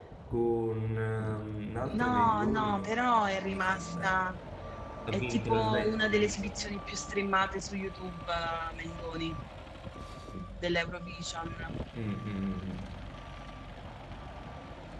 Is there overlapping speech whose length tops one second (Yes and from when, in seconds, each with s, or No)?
Yes, from 1.9 s